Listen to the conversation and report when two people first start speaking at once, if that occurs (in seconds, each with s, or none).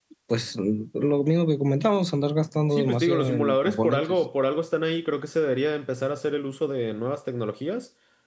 2.7 s